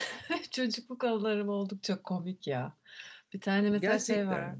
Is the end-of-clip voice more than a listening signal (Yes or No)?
No